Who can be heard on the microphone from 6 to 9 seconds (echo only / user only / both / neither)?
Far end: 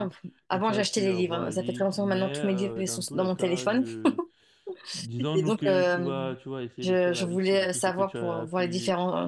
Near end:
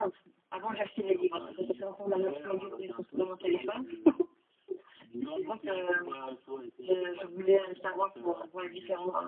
echo only